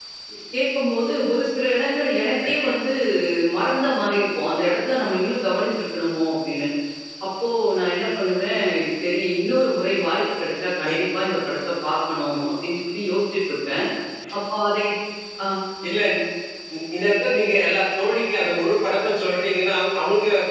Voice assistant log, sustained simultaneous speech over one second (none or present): none